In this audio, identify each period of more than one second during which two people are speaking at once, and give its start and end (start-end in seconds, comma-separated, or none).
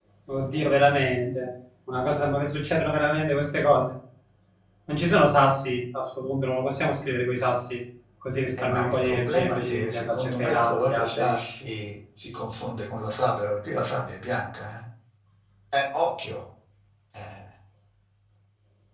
8.6-11.3